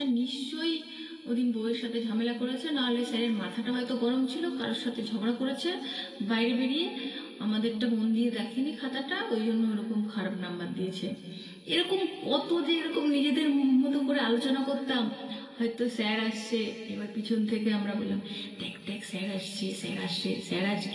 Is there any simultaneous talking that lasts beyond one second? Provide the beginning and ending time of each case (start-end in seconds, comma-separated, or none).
none